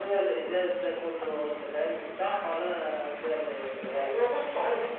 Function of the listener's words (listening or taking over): taking over